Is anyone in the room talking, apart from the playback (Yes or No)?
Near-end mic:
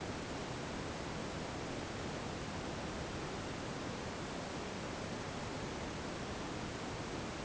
No